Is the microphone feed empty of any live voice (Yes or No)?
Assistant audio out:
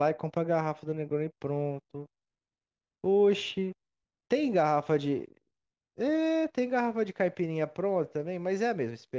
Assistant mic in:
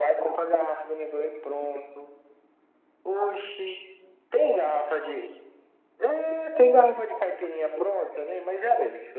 Yes